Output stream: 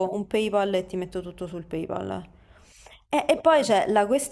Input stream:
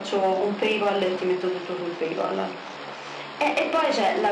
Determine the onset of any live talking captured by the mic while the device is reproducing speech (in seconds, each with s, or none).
none